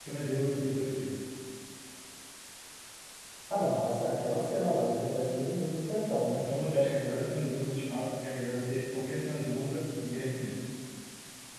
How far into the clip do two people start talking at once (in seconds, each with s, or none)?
none